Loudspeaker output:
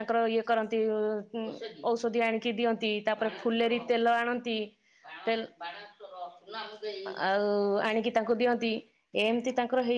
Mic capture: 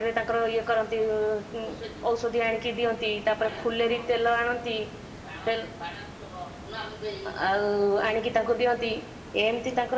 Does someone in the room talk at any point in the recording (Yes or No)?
No